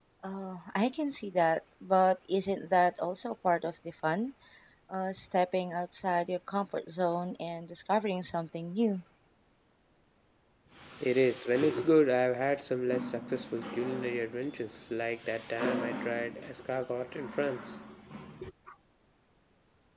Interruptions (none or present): none